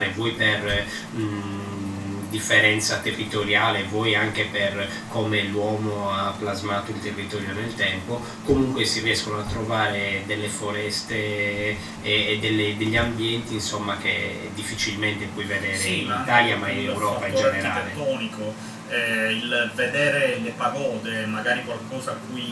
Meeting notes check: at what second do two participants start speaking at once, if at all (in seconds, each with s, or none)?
15.7 s